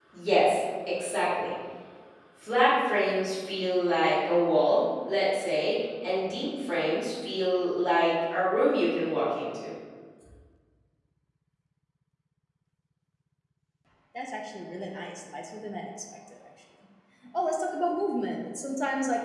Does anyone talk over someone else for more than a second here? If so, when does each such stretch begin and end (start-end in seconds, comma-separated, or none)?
none